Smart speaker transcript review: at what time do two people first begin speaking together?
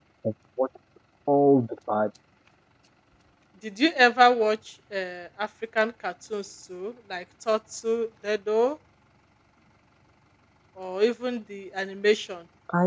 none

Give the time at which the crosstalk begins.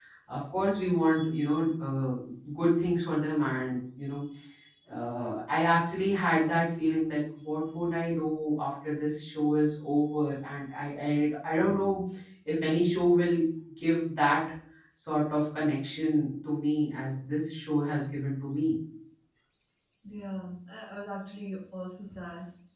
none

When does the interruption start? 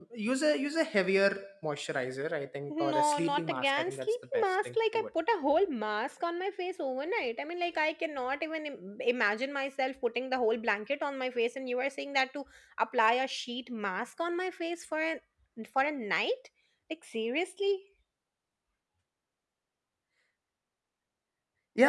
2.7 s

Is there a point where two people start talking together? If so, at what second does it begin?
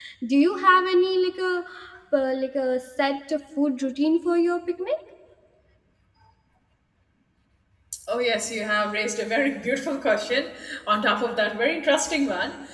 none

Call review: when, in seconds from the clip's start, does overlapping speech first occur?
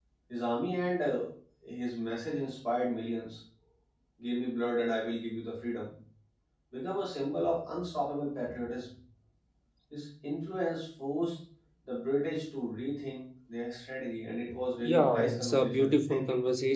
14.8 s

